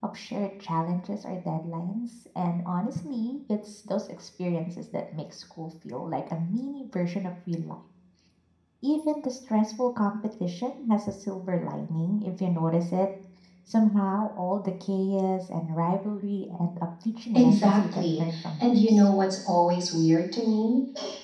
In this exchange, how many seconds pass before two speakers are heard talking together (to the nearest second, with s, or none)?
17 s